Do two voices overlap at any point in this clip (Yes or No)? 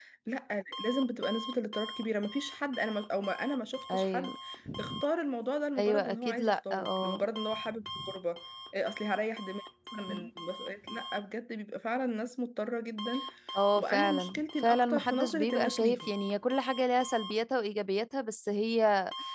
Yes